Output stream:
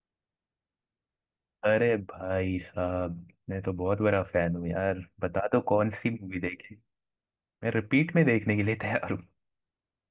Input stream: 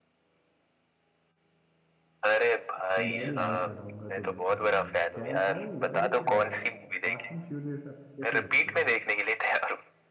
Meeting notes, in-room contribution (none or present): present